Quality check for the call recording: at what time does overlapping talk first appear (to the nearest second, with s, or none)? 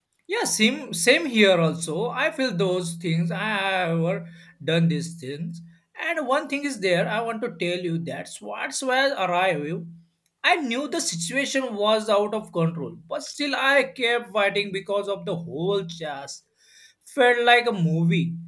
none